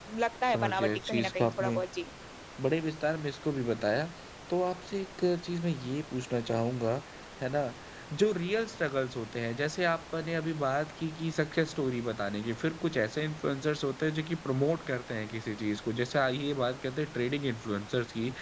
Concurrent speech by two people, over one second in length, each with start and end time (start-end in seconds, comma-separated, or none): 0.5-1.8